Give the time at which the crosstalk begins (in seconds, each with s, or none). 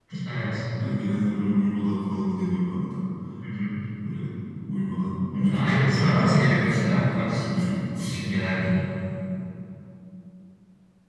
5.3 s